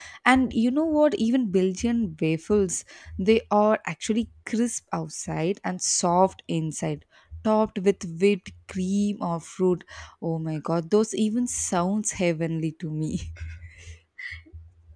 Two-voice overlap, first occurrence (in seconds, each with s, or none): none